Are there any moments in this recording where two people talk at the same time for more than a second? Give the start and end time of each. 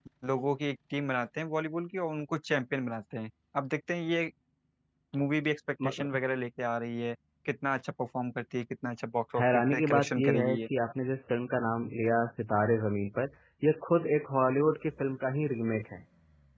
9.4-10.7

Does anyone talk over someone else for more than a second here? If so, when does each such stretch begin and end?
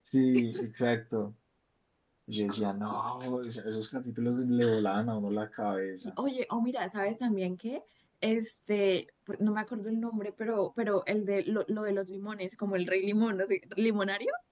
none

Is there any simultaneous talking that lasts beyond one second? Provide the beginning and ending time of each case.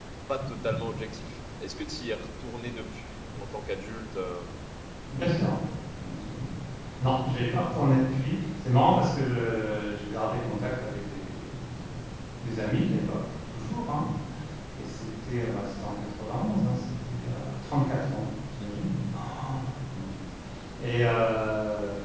none

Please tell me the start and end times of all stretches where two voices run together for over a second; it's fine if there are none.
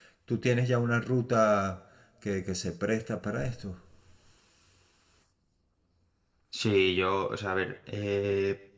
none

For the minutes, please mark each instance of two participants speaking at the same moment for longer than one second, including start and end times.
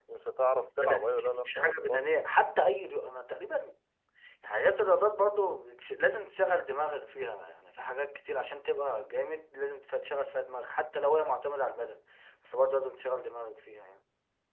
0.6-2.0

